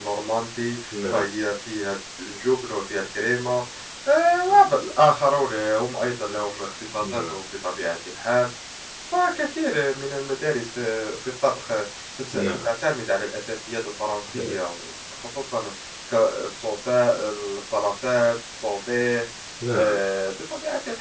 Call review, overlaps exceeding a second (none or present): none